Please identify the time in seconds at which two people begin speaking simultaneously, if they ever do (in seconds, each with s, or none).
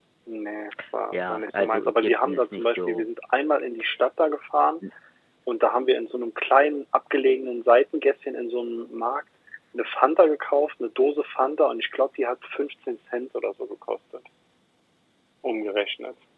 1.1 s